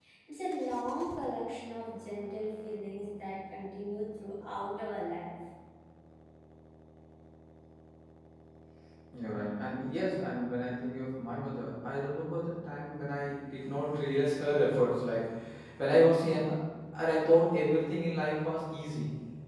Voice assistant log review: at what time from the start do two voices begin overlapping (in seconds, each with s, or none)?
none